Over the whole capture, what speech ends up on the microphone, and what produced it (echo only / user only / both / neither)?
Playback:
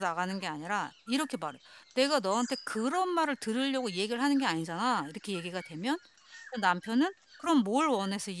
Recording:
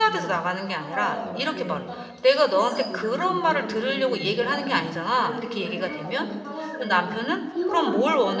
both